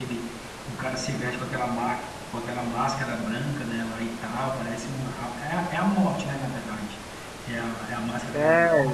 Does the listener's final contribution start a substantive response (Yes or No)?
Yes